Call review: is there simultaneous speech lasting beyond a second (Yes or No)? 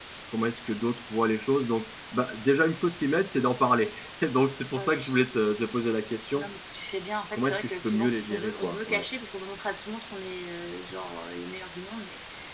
Yes